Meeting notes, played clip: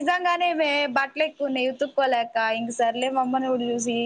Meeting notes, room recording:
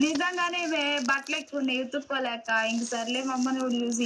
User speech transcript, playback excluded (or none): none